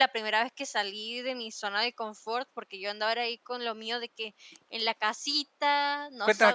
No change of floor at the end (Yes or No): No